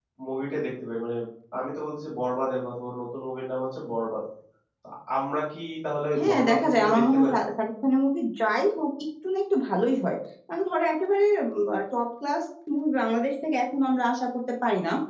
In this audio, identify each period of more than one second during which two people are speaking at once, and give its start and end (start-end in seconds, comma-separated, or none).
6.2-7.4